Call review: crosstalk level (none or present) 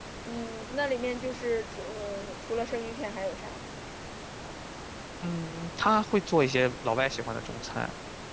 none